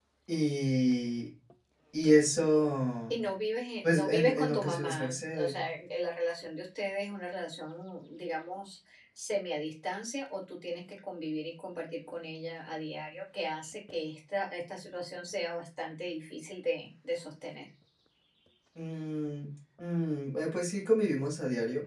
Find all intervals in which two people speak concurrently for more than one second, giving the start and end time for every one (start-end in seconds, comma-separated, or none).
3.8-5.6